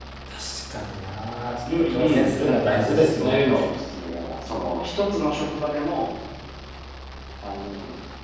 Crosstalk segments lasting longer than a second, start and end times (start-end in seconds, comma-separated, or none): 1.8-3.4